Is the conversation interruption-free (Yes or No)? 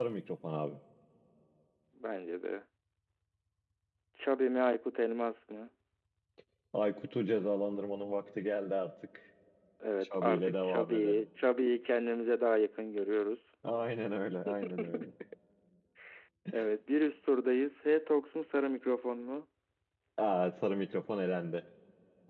No